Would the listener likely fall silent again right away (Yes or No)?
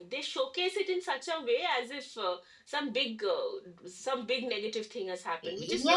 No